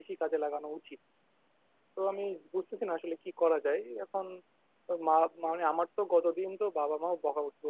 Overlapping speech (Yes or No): No